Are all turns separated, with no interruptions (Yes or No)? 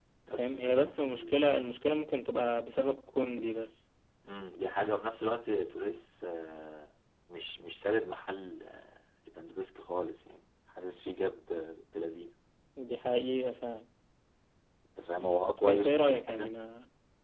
No